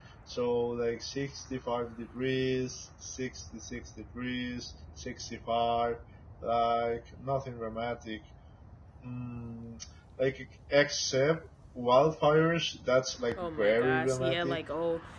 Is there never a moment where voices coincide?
No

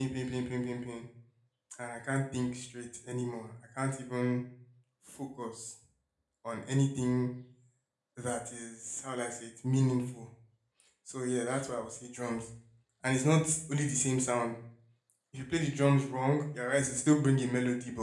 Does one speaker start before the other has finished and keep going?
No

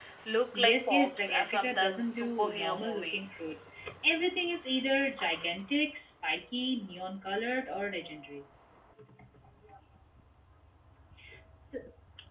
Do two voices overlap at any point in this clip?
Yes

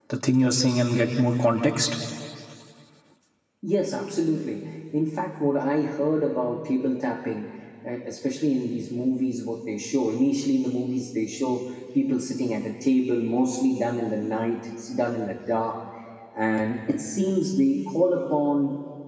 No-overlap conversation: Yes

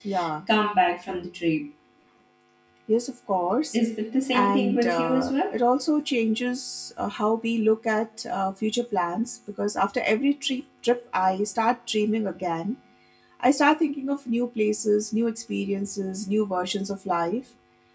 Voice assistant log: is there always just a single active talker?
No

